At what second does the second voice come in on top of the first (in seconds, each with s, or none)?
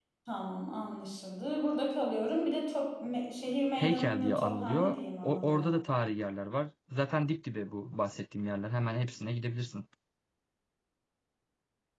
3.8 s